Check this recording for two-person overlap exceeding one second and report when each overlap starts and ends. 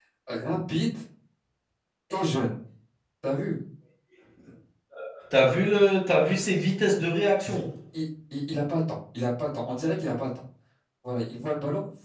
none

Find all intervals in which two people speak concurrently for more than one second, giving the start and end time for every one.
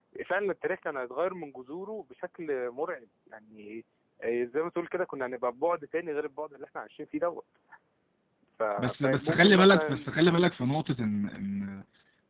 8.8-10.1

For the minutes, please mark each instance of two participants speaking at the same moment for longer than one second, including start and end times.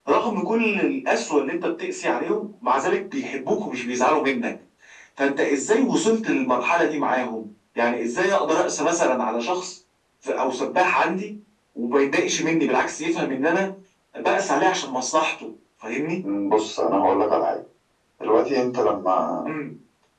none

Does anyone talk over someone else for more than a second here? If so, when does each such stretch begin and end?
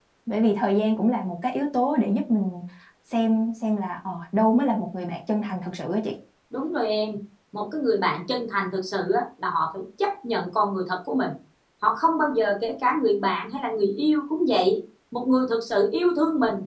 none

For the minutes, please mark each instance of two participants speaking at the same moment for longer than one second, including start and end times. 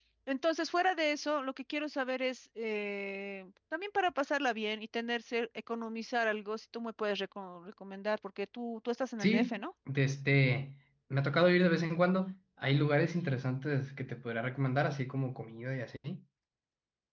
none

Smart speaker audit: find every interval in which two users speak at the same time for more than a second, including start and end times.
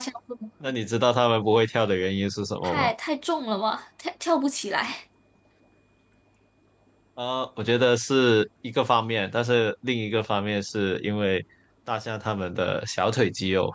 none

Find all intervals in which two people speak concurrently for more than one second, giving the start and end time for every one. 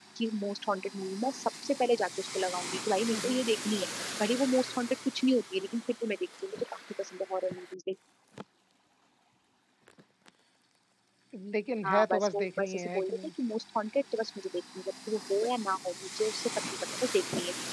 11.8-13.1

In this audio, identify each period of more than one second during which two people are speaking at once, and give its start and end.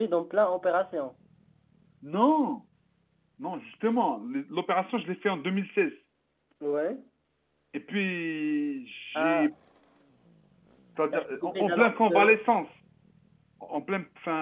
11.1-12.3

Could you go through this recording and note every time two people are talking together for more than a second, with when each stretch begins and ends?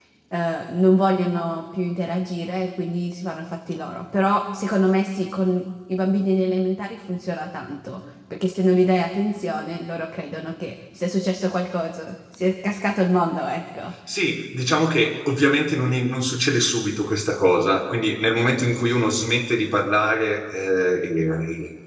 none

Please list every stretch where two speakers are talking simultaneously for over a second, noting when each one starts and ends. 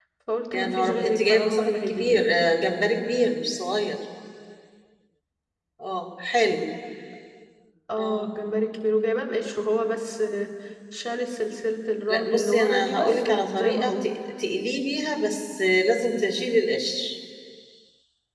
0.5-2.2, 12.1-14.0

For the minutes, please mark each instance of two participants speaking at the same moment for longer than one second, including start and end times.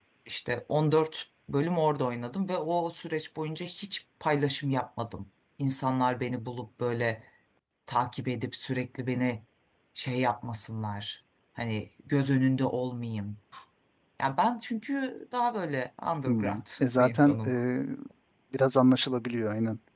16.3-17.5

